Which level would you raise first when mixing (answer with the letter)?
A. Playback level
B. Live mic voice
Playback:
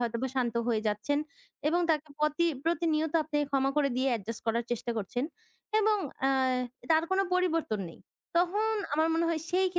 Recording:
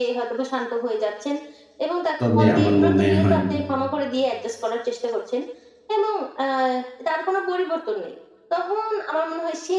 A